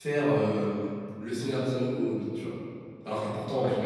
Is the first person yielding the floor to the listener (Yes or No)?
No